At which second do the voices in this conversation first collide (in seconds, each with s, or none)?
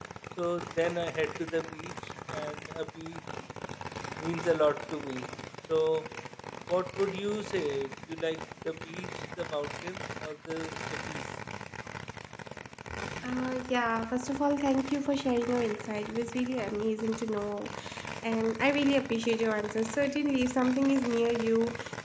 none